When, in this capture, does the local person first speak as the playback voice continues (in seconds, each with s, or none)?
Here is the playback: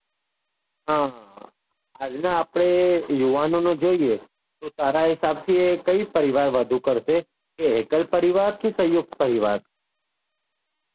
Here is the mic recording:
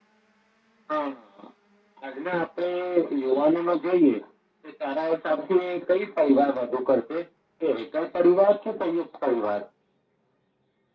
none